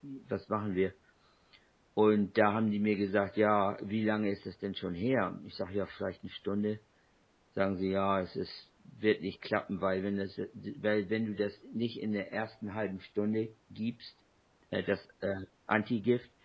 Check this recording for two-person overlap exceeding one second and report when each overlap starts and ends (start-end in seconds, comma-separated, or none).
none